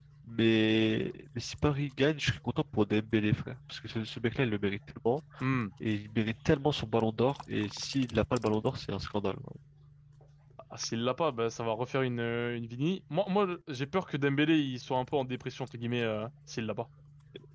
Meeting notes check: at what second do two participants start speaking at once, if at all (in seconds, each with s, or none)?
none